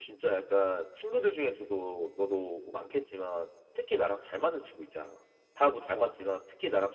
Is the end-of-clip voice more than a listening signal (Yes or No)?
No